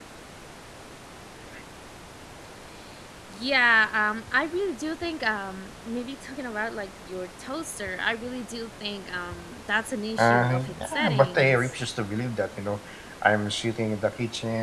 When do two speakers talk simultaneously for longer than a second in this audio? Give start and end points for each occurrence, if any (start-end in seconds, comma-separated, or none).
10.2-11.6